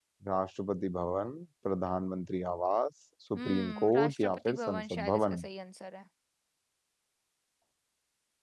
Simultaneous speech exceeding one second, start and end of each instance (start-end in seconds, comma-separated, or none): 3.3-5.4